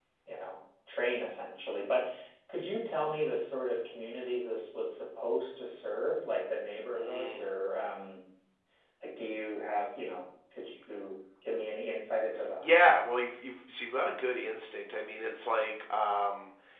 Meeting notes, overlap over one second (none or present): none